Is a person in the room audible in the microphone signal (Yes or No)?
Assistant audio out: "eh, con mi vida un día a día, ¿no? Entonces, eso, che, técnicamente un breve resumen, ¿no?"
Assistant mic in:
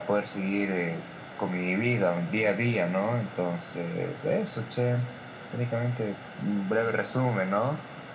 No